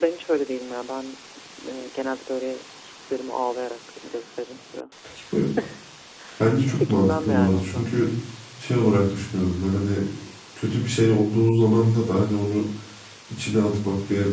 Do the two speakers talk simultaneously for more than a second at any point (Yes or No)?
Yes